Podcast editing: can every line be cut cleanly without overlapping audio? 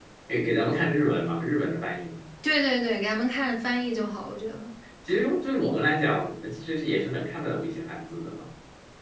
Yes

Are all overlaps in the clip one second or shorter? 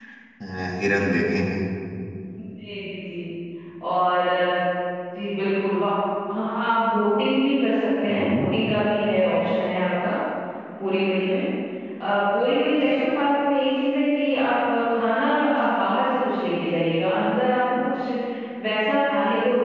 Yes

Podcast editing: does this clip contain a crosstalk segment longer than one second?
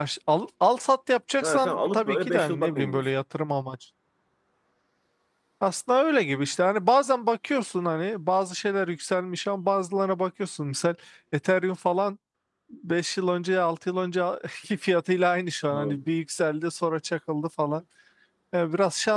Yes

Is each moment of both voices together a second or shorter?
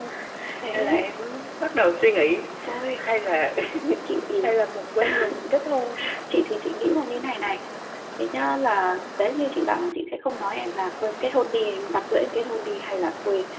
Yes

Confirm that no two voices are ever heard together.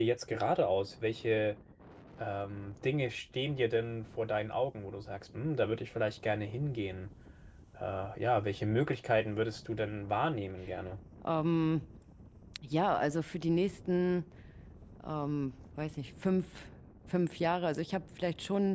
Yes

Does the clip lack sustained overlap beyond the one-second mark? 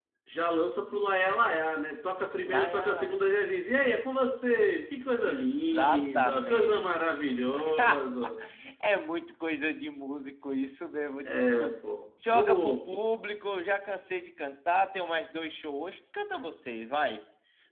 No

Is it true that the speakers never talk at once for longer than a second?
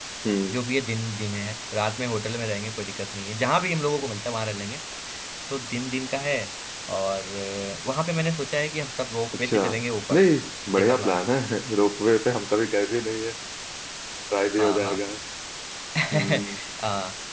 Yes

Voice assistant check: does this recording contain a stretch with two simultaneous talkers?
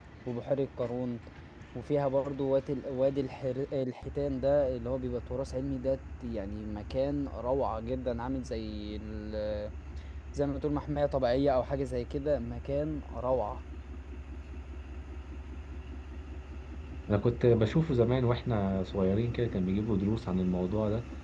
No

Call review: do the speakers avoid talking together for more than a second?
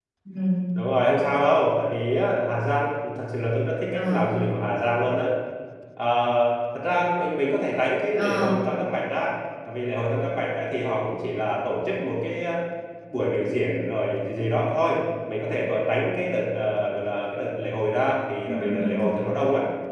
Yes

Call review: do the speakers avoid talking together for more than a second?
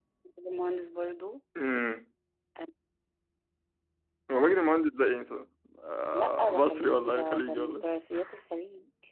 No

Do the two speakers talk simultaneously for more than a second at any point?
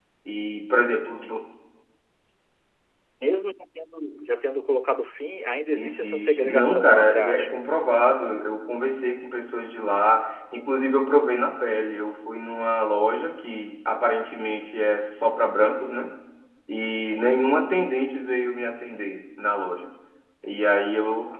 Yes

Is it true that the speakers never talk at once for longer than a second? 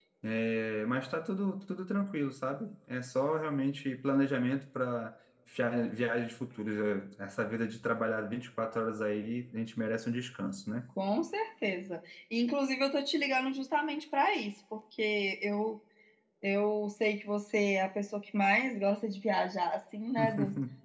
Yes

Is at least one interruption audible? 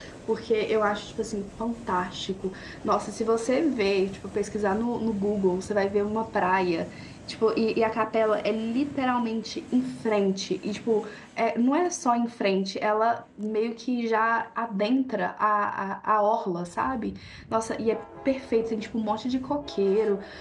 No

